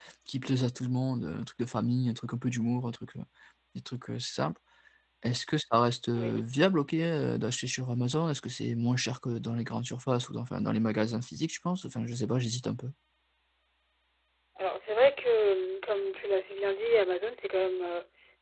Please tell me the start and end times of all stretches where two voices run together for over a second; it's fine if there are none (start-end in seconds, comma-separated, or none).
none